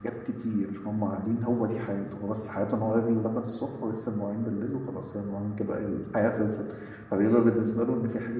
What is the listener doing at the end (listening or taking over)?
listening